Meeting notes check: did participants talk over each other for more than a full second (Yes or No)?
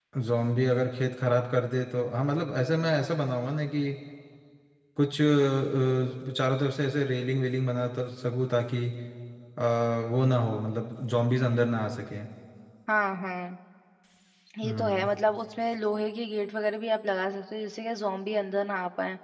No